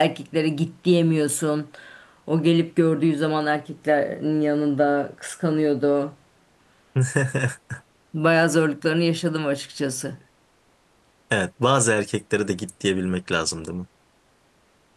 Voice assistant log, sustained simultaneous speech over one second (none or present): none